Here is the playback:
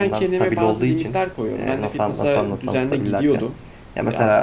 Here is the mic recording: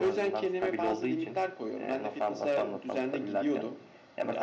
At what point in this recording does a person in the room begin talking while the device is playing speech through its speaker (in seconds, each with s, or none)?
none